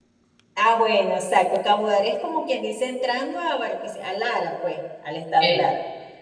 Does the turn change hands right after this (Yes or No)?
No